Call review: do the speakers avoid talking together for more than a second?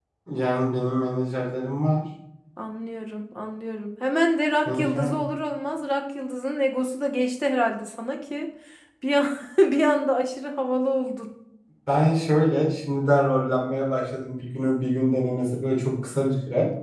Yes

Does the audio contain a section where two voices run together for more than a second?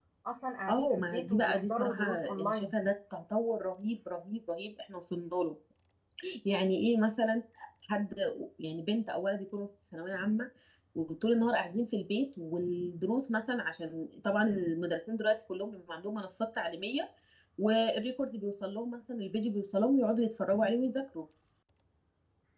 Yes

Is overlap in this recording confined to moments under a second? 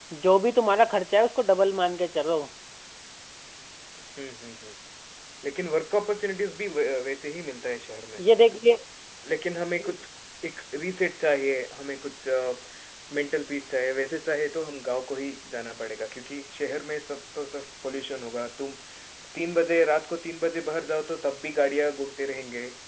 Yes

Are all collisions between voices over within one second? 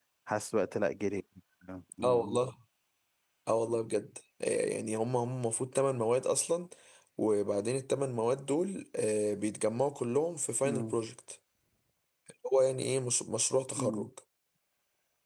Yes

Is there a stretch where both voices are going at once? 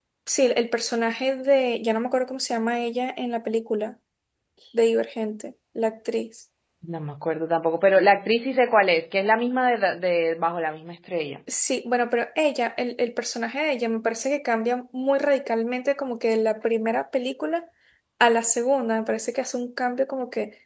No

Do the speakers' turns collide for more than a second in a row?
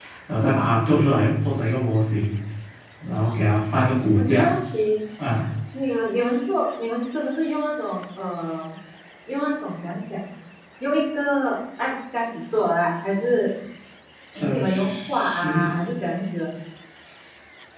Yes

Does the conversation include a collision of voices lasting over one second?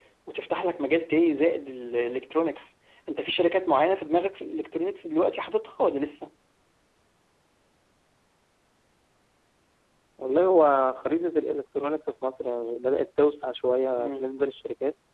No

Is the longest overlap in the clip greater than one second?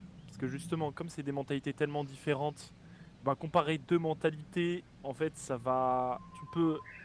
No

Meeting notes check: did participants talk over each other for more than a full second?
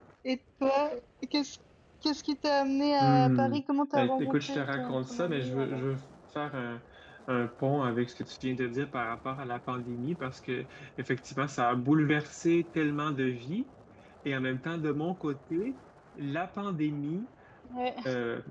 Yes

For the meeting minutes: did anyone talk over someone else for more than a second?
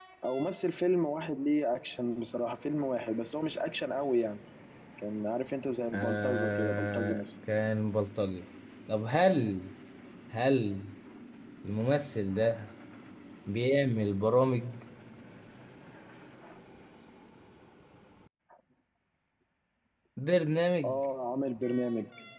Yes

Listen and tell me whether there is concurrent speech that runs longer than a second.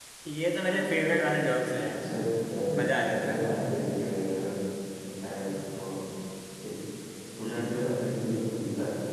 No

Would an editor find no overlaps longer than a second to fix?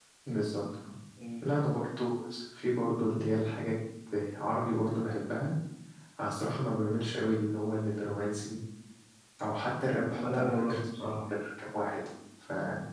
No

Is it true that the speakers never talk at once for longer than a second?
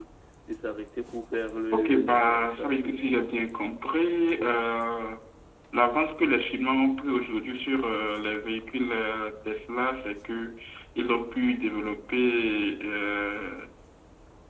No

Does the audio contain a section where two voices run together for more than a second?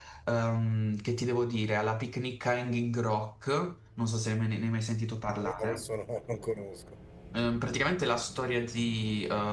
No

